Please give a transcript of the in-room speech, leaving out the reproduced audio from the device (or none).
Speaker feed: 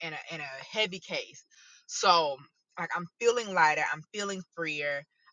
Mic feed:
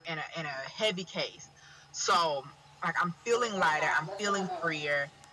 That, that's how. That's where I'm at right now.